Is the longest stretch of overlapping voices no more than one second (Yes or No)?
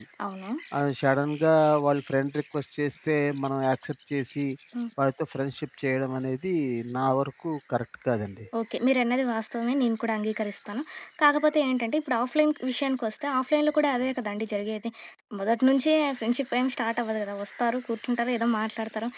Yes